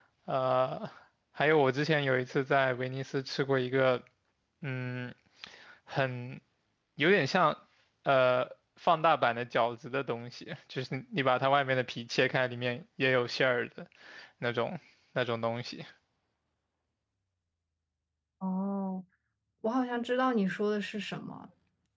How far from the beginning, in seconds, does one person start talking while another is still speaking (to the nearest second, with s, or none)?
none